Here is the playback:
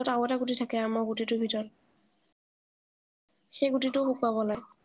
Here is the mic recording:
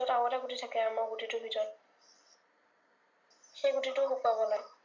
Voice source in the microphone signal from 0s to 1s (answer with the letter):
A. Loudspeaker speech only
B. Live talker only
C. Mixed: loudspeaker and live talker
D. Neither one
A